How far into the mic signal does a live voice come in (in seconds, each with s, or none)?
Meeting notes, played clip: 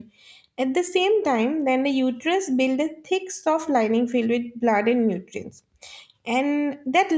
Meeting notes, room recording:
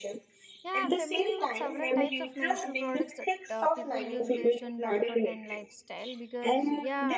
0.6 s